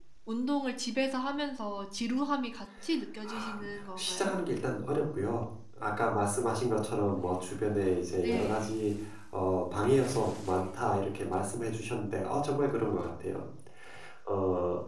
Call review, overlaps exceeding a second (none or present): none